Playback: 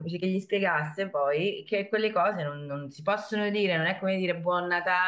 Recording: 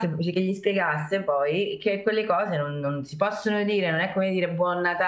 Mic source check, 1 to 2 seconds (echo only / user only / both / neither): echo only